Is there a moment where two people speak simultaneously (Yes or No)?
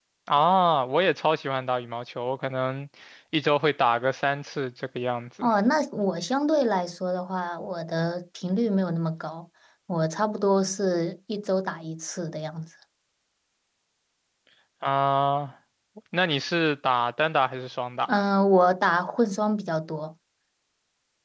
No